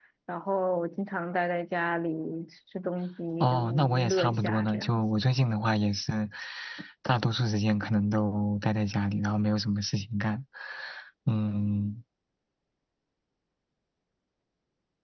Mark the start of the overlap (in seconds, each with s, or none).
3.4 s